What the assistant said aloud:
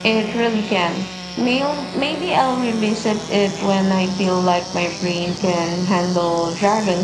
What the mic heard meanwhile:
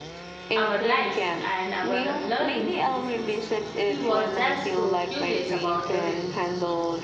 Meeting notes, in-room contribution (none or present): present